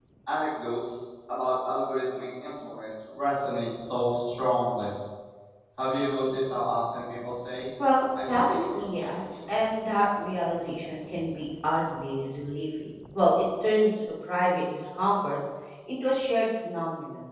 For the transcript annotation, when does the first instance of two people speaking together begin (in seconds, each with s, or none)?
8.3 s